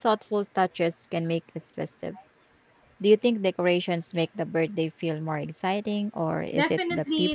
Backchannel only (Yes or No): No